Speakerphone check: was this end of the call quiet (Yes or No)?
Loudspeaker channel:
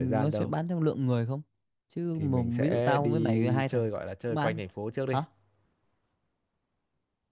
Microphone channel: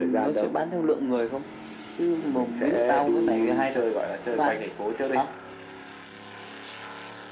Yes